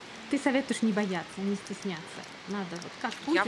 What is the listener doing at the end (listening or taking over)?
taking over